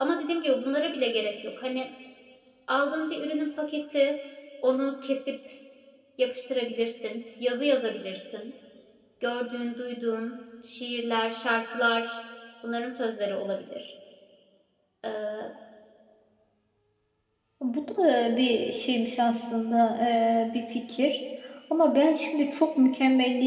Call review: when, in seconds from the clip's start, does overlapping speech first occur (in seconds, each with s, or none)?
none